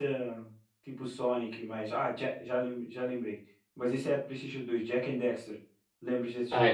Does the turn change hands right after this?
Yes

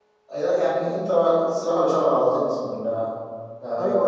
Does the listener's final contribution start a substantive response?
Yes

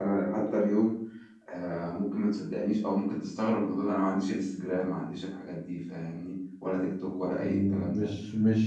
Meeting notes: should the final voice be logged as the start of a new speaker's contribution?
Yes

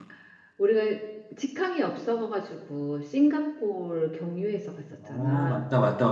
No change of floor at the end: No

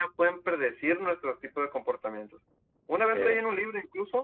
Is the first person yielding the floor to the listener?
No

